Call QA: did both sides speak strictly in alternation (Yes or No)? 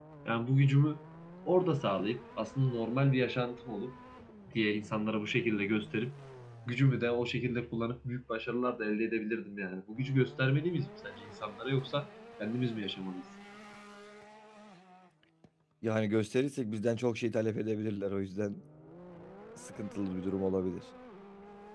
Yes